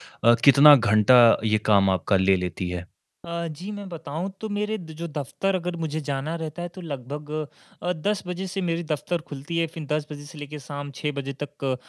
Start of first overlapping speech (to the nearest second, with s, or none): none